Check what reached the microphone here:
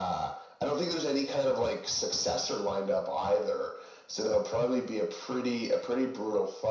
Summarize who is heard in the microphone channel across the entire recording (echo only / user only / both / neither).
echo only